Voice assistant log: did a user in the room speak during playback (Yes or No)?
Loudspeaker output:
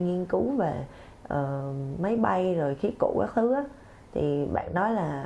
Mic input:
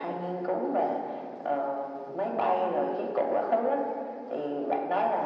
No